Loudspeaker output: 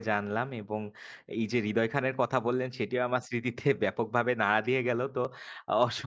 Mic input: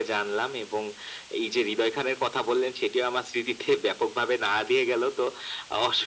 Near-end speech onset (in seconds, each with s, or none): none